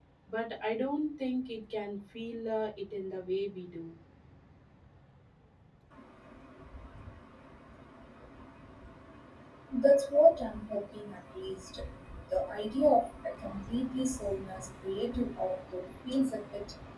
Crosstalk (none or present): none